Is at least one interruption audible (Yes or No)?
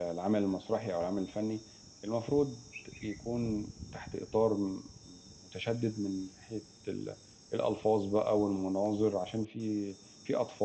No